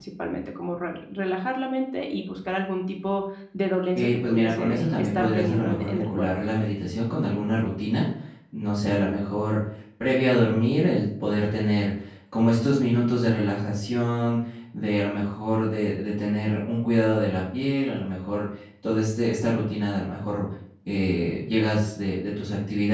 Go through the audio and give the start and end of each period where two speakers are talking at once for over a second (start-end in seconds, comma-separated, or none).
4.0-6.3